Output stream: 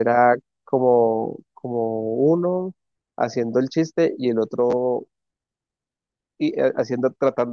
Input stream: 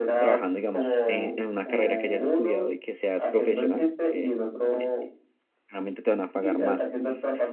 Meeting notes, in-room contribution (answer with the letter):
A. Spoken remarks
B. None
A